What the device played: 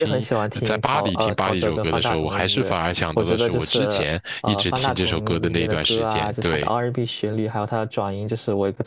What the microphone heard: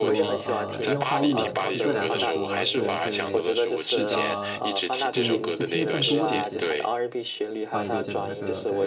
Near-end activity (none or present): present